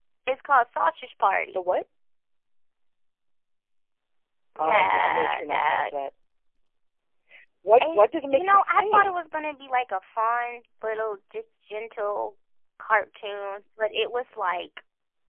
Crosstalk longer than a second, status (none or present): present